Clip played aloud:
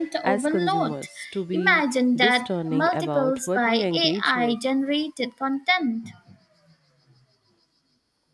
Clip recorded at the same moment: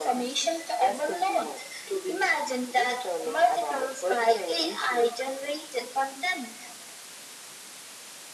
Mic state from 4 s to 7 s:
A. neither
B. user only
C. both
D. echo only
D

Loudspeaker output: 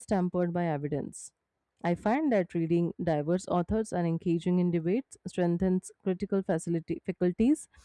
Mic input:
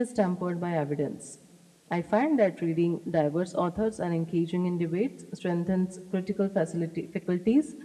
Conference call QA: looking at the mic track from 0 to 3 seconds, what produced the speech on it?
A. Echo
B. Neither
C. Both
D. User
A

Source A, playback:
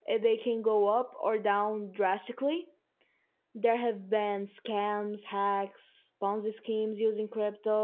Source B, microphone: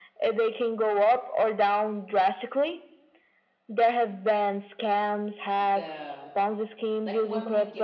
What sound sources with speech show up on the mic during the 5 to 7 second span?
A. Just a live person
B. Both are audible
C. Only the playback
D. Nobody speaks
B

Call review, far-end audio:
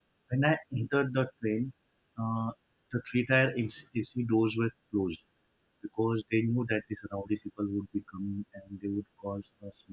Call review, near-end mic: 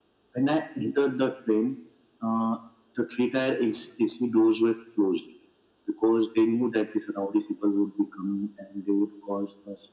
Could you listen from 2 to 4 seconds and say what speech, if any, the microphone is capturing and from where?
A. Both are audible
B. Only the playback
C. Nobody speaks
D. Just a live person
B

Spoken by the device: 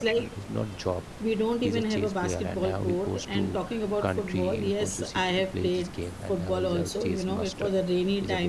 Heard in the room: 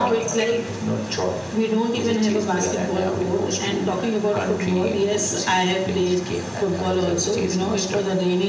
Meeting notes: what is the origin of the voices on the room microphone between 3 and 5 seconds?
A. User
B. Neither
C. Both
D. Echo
D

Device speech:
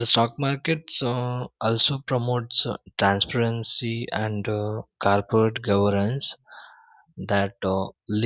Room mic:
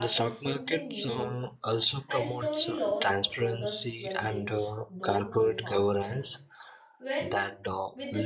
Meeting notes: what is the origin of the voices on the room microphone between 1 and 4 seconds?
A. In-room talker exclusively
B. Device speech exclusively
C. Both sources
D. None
C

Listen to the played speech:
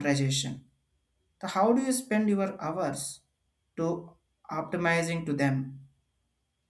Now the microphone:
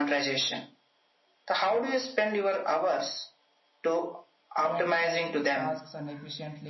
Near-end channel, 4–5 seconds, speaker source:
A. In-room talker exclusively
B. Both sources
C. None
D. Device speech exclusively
B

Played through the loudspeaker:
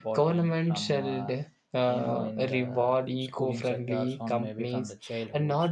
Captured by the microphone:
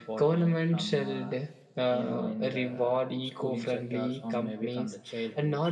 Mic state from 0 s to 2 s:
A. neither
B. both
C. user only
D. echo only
D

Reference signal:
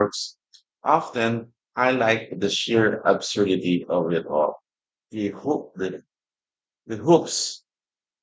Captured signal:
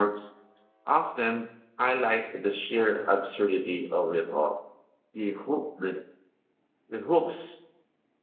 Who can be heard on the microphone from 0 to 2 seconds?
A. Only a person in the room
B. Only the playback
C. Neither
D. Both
B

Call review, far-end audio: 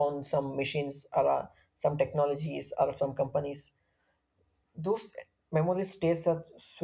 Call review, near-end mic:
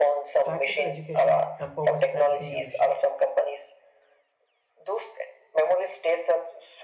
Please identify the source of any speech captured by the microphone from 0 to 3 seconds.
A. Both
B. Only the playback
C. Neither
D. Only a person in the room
A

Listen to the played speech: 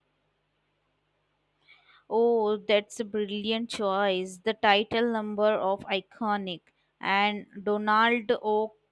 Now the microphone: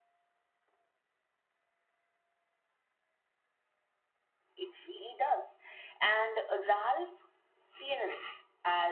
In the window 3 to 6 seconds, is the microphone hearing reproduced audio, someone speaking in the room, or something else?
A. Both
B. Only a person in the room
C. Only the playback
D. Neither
B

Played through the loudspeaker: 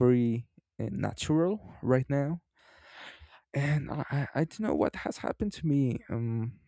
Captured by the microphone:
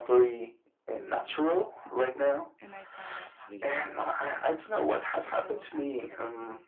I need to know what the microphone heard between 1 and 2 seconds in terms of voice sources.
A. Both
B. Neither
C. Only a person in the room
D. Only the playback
A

